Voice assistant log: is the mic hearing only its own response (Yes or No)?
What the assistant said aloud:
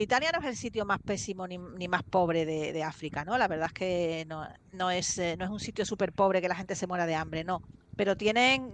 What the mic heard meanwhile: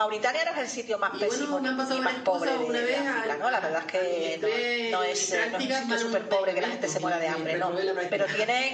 No